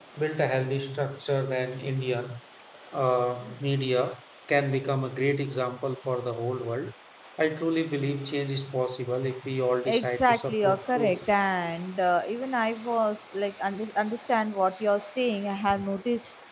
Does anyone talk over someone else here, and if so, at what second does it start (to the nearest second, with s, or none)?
10 s